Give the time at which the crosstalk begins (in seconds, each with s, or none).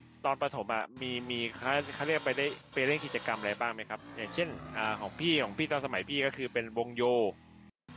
none